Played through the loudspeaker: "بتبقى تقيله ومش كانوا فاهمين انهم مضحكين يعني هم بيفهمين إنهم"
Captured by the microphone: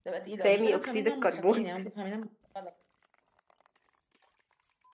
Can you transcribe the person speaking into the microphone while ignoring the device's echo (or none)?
سامي اكسيد الكربون